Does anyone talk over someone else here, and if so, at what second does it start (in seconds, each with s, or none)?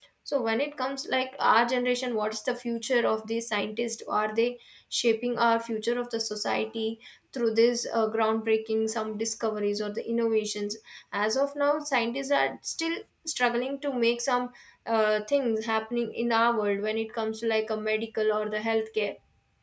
none